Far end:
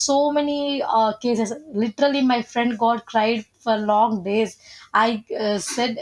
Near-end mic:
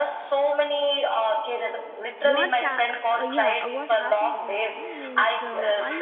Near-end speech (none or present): present